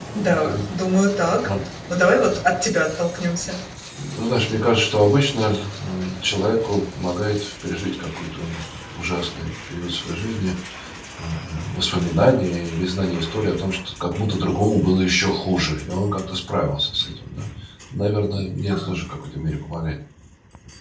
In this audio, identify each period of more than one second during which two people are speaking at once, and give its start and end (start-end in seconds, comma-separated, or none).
none